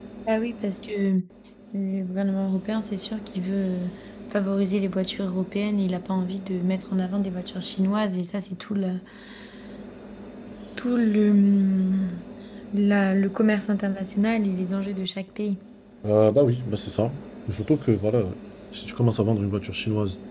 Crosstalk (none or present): none